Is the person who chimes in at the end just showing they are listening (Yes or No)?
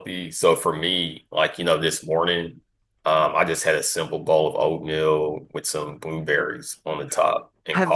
No